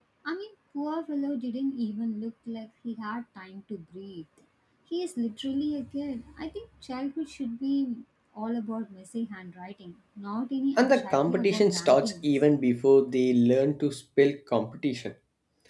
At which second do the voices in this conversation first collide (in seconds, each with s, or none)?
10.8 s